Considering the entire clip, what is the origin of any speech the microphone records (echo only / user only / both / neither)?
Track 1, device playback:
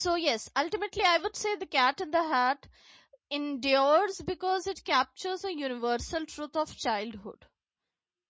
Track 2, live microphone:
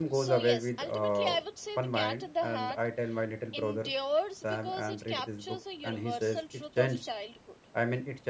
both